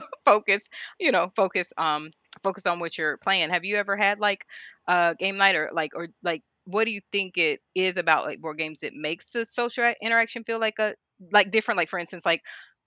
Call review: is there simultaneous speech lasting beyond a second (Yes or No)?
No